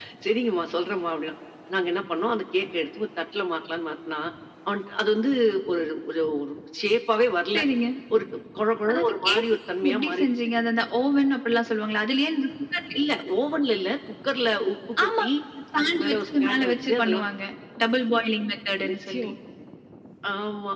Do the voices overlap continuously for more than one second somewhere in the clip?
Yes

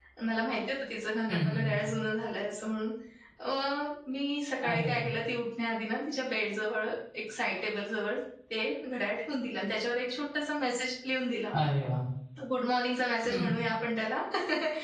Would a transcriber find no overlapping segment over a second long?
Yes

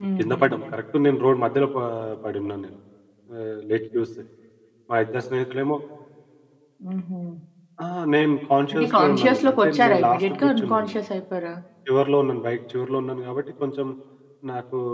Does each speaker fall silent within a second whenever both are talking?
No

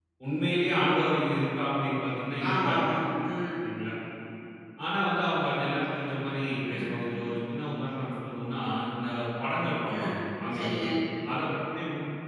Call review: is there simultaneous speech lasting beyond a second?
No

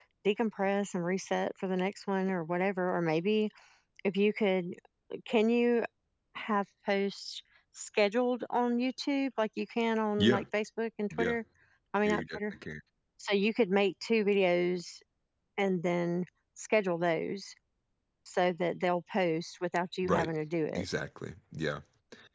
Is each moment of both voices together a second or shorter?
Yes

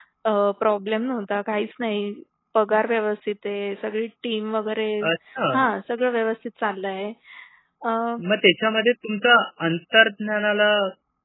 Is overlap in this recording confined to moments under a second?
Yes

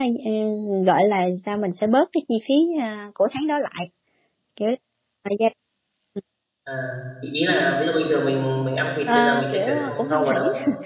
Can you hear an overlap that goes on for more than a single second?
Yes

